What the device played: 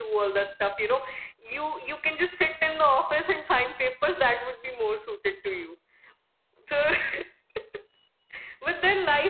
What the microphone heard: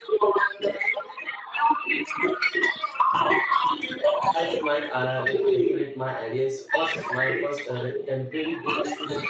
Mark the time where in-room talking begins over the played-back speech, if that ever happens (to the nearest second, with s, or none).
4 s